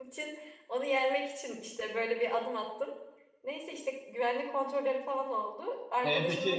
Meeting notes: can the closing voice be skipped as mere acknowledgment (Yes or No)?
No